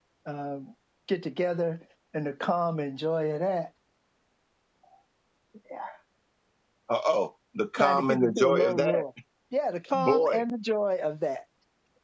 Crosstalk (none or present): present